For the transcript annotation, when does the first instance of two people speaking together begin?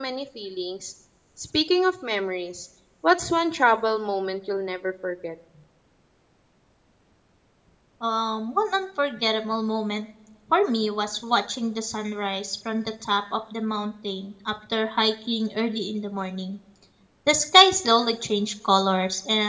none

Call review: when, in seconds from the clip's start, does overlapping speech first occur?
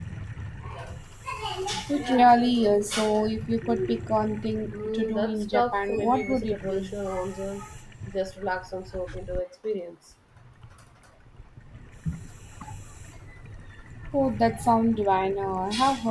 5 s

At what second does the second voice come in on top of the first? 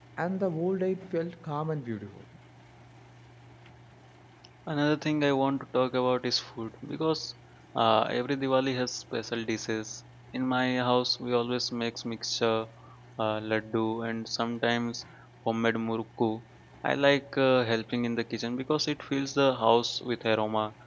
none

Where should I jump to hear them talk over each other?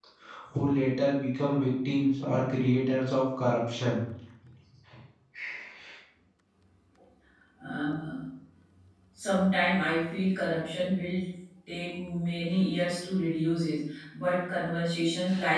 none

